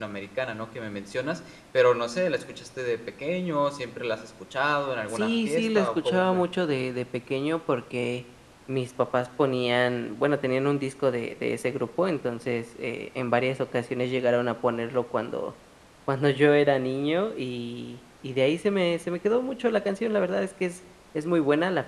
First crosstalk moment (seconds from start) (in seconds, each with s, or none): 5.1 s